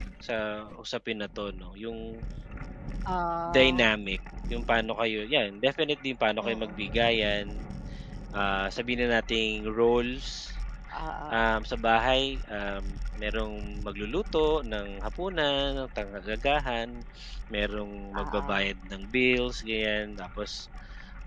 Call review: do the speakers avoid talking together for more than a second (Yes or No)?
Yes